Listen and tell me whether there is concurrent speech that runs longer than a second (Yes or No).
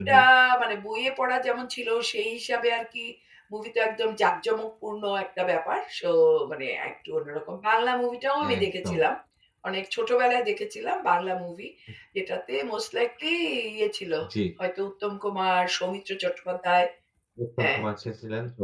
No